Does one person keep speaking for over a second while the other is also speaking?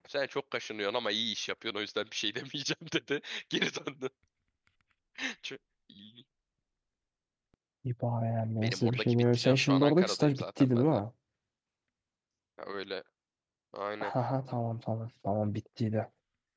Yes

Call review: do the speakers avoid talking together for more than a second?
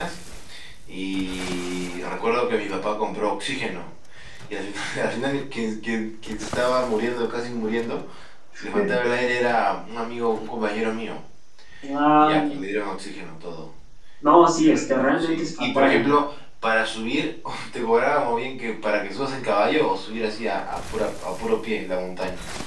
No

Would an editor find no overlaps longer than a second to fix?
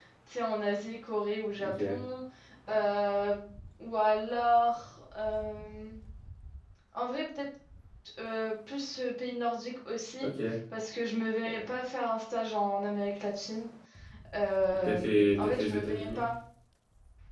No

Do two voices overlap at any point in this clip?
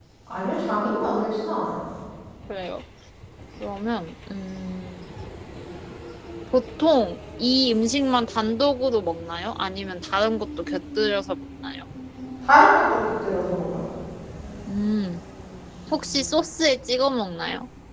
No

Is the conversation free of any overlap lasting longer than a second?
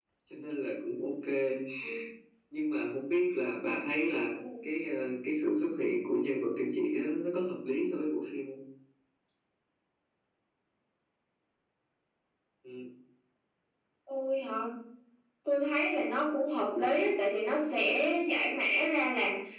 Yes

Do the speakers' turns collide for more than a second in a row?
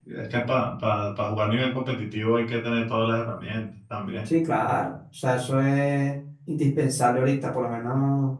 No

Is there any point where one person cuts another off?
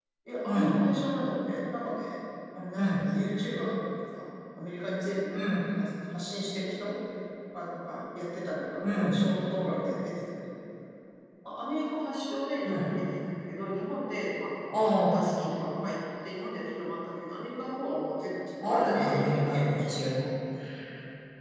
Yes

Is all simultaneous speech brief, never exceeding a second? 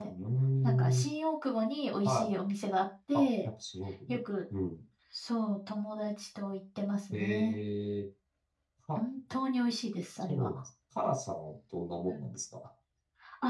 Yes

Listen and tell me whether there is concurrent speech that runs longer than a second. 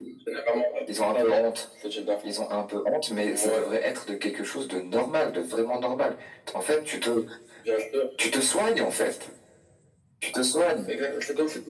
No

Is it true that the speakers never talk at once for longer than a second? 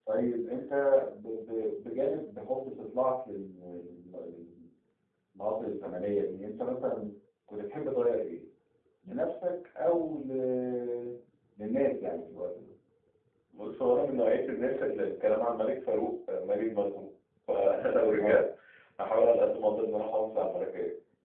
Yes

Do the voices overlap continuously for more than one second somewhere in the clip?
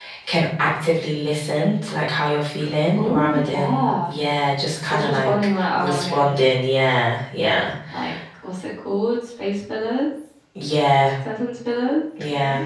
Yes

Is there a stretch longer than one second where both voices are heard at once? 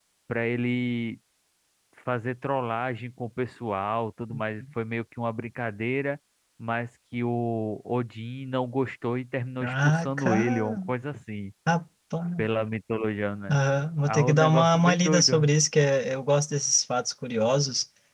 Yes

